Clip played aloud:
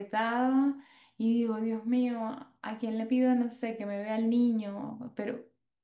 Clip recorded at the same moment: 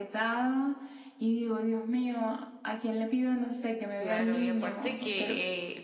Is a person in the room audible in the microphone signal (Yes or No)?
Yes